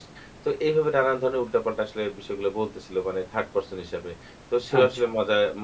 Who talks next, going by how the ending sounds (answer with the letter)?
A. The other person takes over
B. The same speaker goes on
B